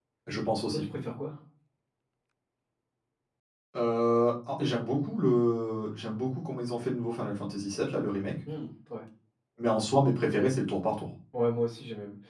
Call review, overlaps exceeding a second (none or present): none